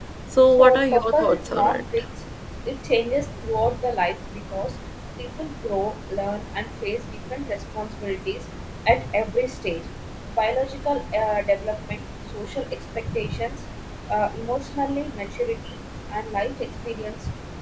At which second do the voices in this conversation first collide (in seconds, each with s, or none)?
0.6 s